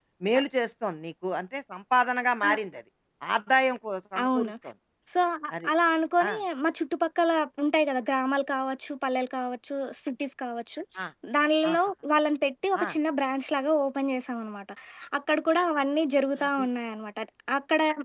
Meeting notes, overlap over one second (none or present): none